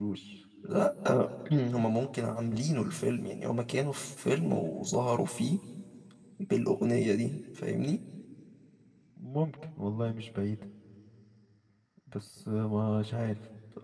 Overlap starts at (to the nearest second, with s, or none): none